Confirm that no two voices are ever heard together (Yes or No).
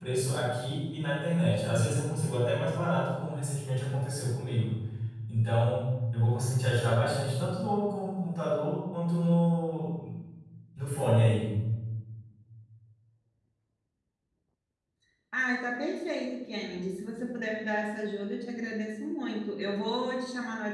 Yes